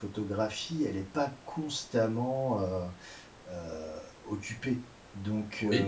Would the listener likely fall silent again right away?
Yes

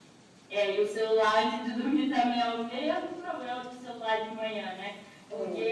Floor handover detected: No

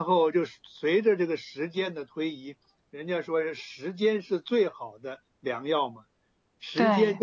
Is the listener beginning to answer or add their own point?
No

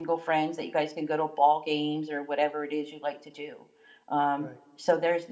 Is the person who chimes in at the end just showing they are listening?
Yes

